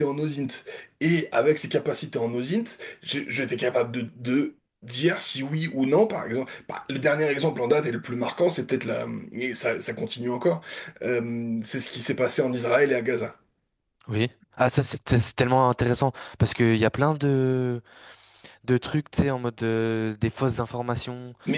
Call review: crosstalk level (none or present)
none